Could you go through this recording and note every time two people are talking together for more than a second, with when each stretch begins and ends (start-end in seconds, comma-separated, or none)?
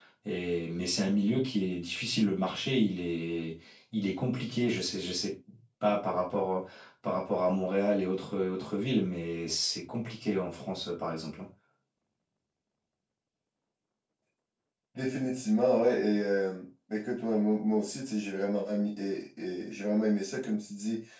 none